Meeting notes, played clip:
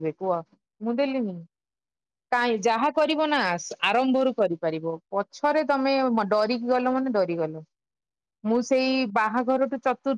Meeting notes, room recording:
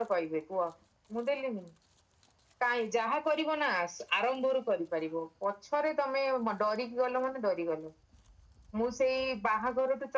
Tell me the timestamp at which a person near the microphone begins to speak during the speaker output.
none

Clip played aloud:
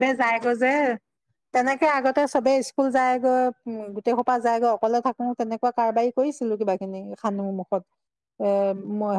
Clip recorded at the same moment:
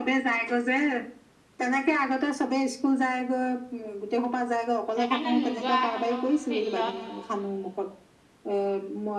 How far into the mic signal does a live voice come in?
5 s

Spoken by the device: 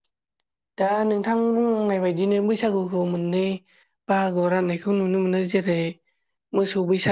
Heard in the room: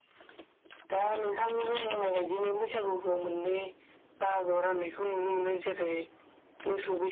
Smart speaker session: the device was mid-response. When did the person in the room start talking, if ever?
none

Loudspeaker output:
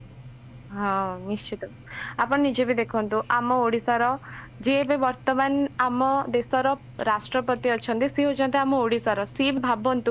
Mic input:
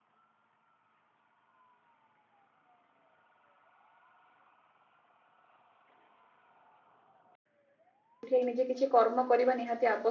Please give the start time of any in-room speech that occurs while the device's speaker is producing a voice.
8 s

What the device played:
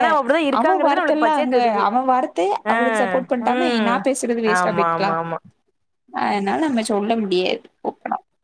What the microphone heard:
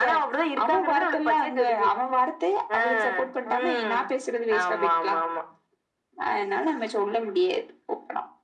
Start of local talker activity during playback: none

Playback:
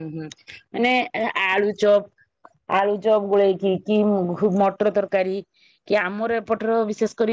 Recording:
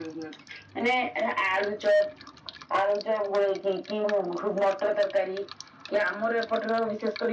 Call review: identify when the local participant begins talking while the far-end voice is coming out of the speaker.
none

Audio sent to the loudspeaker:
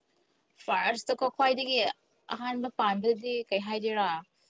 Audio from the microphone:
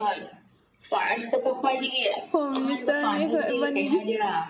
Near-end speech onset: 2 s

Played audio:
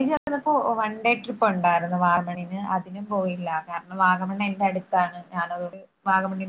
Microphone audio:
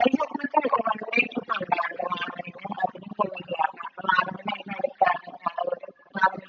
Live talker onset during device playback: none

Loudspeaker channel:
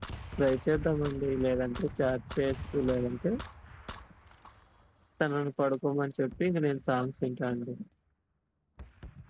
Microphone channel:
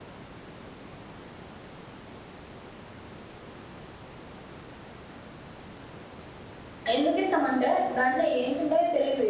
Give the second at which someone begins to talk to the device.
7 s

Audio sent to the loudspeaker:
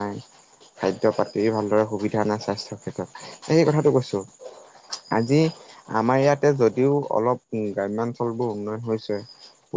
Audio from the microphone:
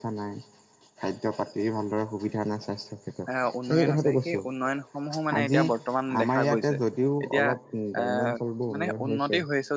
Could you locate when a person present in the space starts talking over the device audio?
3 s

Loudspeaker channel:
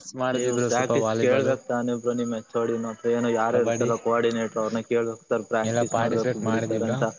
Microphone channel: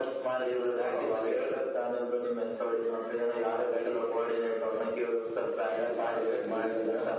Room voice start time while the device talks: none

